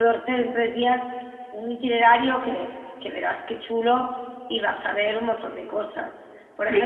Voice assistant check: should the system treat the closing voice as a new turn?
No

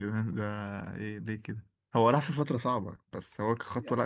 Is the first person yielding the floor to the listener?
Yes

